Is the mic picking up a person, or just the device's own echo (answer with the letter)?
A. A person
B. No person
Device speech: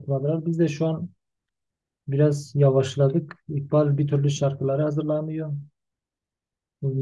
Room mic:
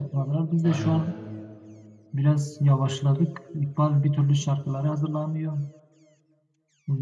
A